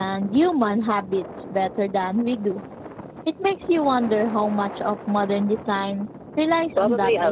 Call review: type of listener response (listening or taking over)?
taking over